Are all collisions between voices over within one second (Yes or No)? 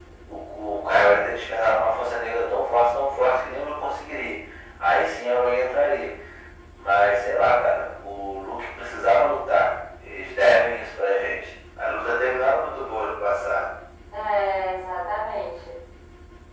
Yes